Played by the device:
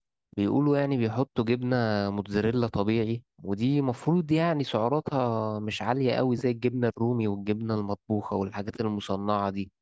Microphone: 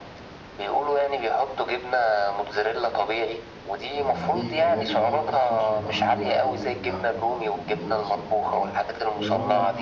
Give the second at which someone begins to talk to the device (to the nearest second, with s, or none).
4 s